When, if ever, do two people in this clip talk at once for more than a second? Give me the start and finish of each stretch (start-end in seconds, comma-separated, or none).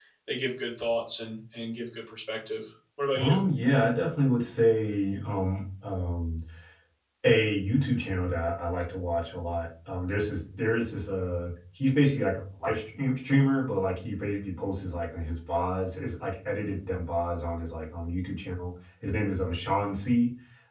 none